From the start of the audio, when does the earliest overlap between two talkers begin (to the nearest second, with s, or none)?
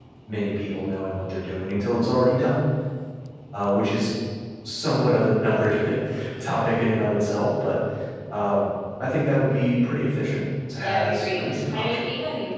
11 s